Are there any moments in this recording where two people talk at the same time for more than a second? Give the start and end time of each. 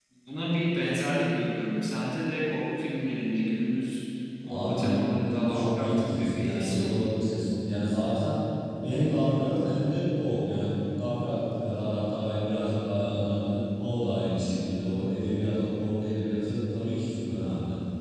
5.5-6.9

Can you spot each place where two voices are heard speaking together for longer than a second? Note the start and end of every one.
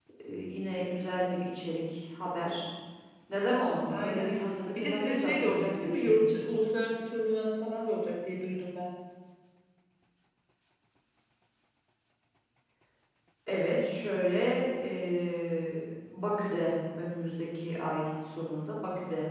4.8-6.4

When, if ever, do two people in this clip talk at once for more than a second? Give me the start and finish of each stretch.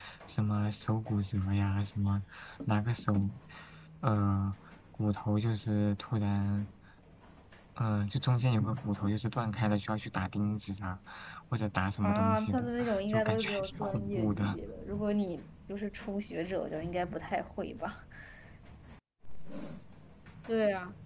12.0-14.6

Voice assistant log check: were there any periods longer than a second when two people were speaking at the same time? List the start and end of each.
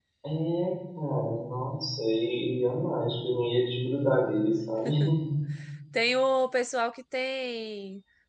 none

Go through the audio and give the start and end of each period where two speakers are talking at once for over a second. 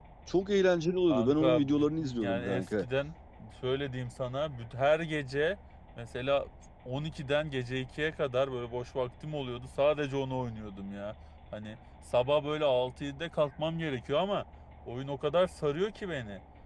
1.1-2.8

